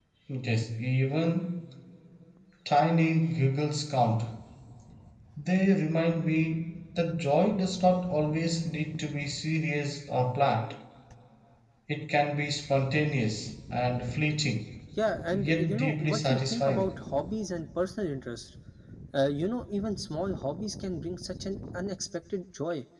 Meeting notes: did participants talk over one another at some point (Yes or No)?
Yes